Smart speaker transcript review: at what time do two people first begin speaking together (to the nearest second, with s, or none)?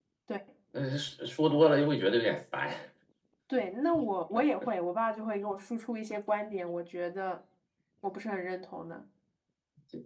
none